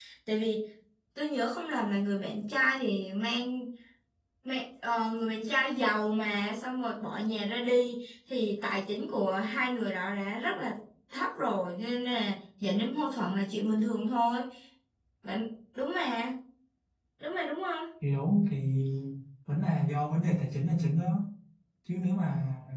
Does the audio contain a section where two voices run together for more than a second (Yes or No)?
No